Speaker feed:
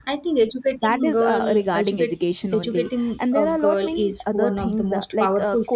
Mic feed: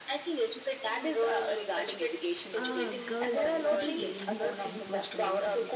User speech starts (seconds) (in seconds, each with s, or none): 2.6 s